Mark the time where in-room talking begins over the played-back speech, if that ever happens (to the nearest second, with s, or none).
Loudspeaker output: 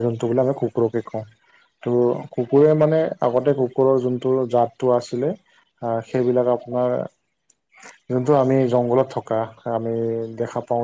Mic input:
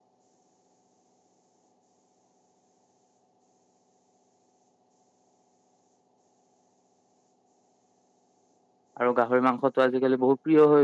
9 s